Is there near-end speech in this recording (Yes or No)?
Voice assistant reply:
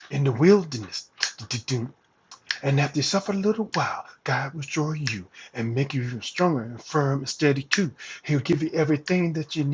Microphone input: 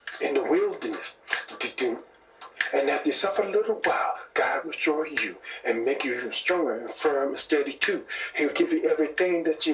No